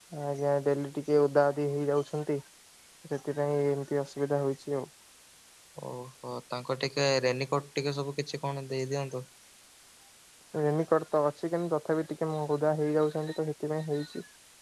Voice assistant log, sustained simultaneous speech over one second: none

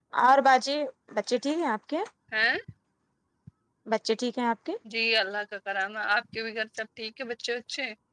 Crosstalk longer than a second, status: none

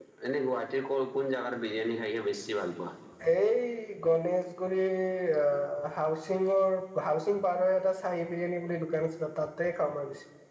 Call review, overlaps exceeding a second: none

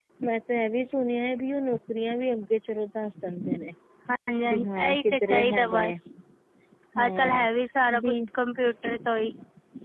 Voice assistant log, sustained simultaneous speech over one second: present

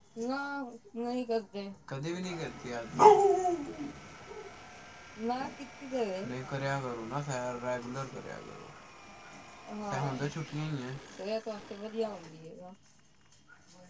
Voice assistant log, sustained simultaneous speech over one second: none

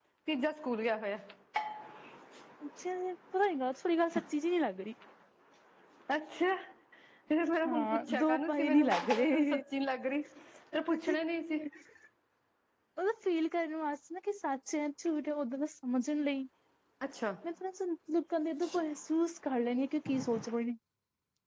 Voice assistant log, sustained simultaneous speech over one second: present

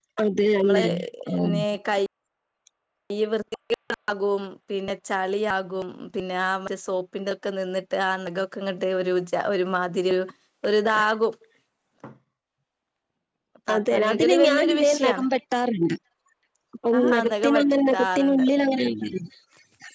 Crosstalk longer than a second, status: present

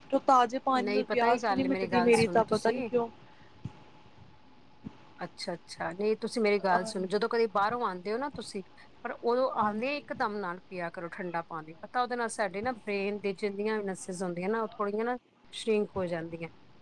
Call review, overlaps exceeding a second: present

